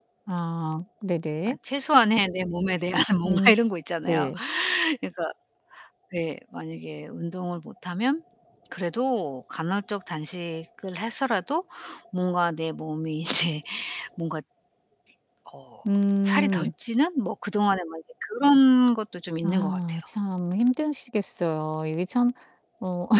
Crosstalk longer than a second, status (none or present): none